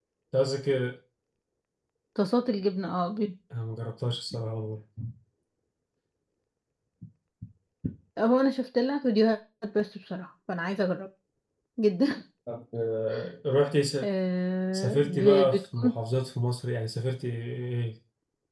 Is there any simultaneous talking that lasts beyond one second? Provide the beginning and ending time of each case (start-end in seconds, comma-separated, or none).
14.7-15.9